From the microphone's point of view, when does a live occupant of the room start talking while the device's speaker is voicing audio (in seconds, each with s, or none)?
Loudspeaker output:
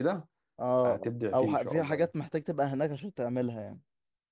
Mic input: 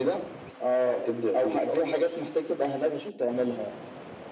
none